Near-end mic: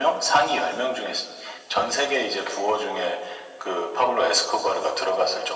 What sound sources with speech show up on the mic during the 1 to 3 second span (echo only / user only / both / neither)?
echo only